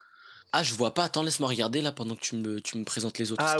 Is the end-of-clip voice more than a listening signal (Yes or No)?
Yes